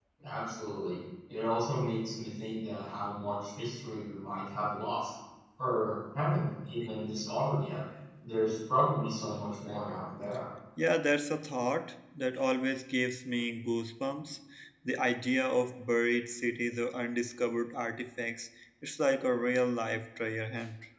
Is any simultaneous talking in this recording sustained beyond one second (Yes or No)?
No